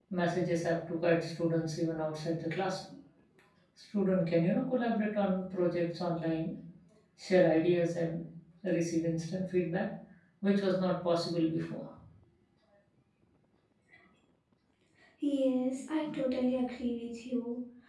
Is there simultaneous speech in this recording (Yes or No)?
No